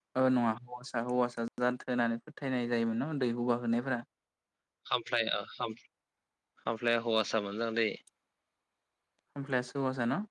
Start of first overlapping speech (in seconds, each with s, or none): none